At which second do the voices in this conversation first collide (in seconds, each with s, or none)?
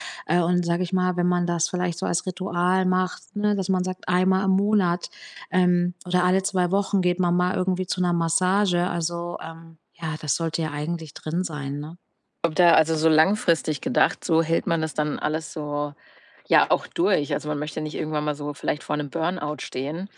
none